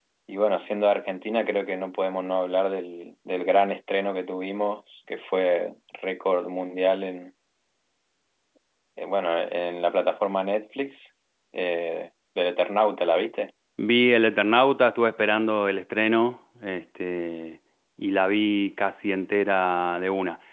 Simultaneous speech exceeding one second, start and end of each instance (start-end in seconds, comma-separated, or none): none